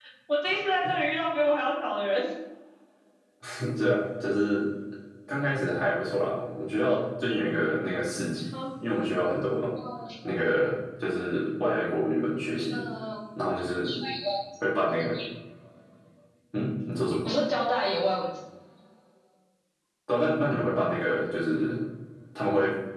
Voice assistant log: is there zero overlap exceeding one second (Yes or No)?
Yes